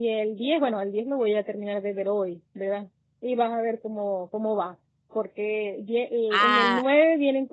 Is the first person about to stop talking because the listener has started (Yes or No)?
No